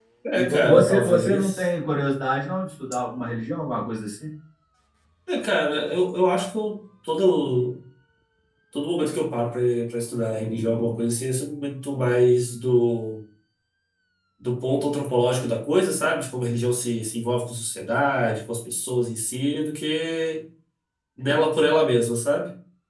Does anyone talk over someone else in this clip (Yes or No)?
Yes